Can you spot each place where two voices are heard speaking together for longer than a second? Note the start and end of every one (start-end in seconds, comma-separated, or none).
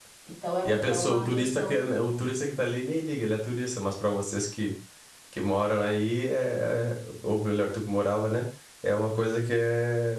0.6-1.8